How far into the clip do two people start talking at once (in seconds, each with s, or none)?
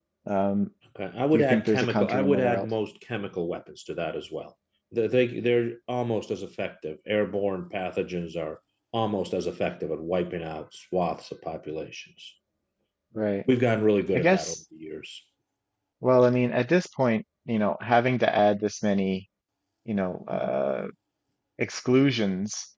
1.3 s